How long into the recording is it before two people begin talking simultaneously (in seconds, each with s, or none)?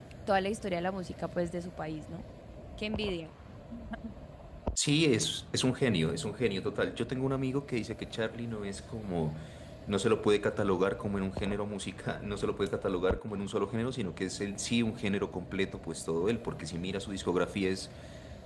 none